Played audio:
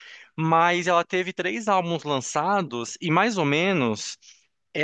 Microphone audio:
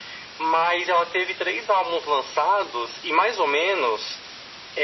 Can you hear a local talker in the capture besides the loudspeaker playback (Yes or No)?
No